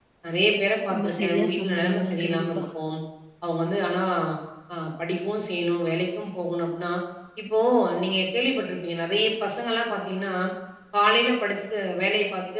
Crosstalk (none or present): present